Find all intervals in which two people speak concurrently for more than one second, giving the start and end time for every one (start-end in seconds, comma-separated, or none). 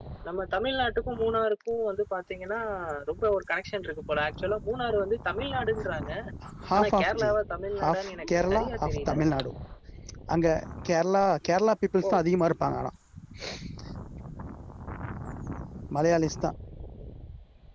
7.8-9.1